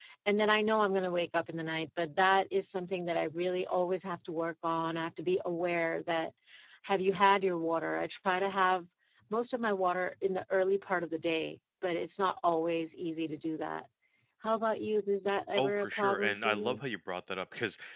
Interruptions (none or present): present